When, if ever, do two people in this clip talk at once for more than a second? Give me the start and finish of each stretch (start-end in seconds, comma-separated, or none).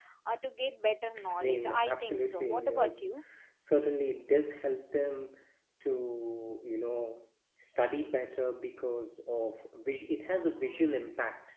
1.4-3.1